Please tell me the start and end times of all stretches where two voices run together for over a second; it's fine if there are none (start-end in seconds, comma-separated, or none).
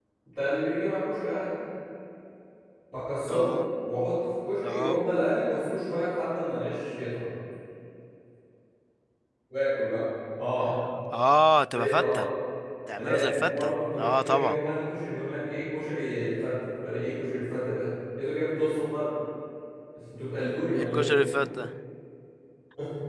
13.0-14.6